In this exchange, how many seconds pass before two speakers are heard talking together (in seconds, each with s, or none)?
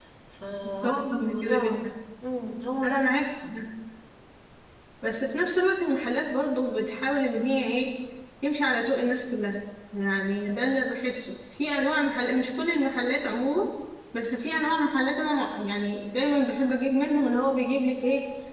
0.6 s